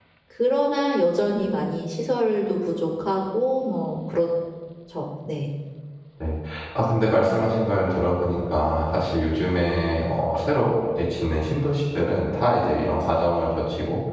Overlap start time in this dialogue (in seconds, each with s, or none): none